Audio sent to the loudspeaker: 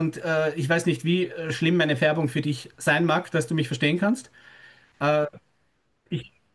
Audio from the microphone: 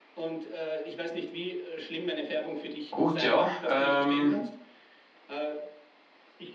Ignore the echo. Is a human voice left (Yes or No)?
Yes